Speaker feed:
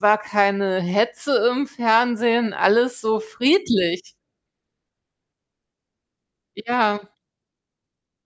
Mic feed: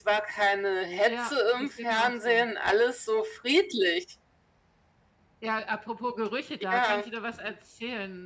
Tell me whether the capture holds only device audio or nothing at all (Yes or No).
No